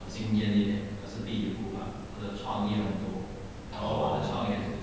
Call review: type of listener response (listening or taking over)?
listening